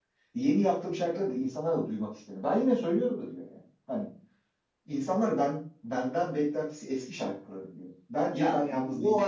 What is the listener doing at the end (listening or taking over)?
taking over